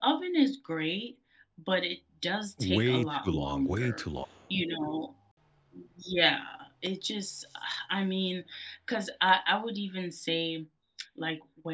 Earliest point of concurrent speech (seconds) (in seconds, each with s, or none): 2.6 s